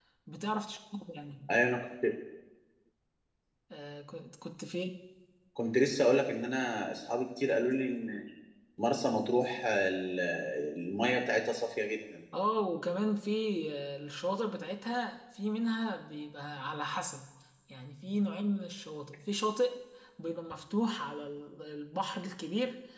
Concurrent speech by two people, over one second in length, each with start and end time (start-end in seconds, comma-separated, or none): none